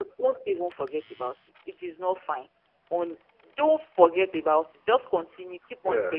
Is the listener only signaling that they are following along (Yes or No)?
Yes